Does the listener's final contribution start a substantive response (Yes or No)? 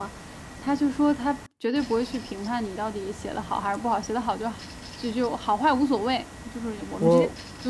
No